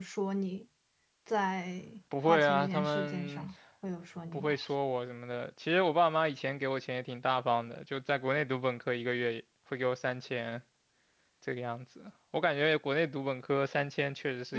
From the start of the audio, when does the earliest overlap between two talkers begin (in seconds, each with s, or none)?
2.1 s